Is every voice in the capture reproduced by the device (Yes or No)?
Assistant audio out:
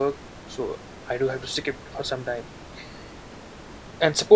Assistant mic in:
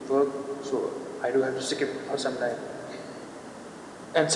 No